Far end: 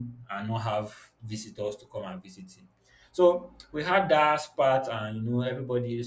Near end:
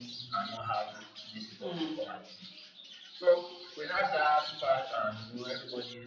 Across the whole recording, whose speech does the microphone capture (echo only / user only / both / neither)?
both